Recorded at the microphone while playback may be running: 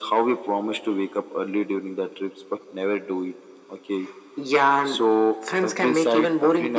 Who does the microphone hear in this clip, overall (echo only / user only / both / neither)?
echo only